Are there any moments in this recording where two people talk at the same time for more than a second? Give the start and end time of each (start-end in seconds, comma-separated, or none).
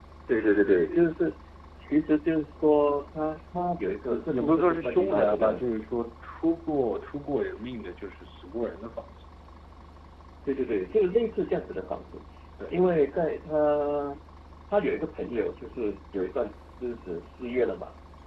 4.1-5.6